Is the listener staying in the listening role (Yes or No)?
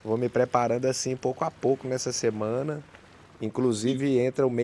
Yes